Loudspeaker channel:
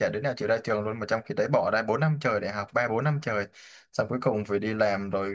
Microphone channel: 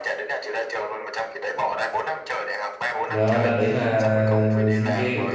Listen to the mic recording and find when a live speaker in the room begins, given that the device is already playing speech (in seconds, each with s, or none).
3.1 s